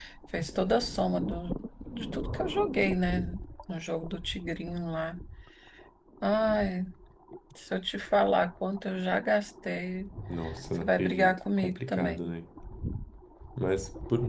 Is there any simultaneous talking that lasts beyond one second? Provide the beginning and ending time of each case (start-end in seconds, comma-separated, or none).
10.8-12.3